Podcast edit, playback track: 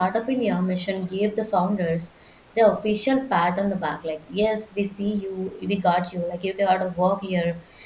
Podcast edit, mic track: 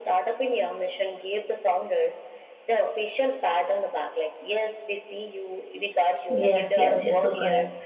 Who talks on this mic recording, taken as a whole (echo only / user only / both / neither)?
both